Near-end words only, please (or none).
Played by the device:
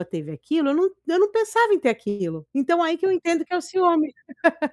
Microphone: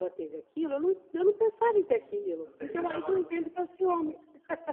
Uhum. Ou seja, não é uma